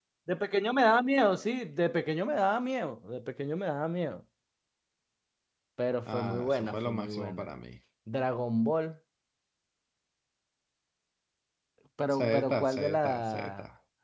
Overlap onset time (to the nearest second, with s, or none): 6 s